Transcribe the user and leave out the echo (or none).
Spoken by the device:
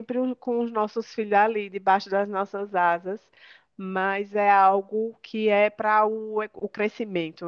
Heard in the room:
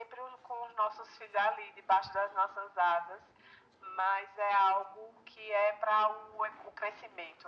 none